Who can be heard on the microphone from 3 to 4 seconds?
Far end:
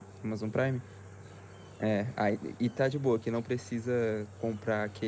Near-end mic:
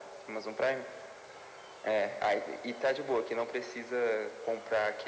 echo only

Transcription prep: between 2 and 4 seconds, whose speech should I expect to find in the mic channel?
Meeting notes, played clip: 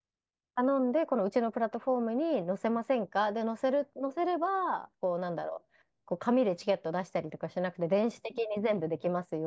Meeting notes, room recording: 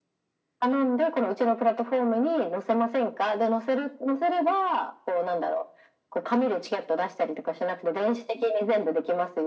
echo only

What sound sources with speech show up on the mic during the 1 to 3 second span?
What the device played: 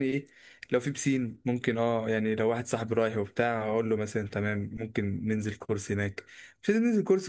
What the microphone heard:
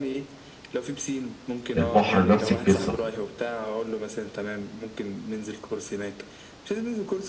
both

